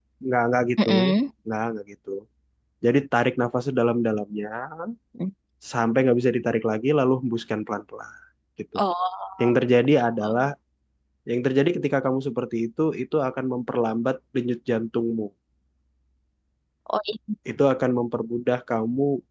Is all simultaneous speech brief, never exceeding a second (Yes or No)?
Yes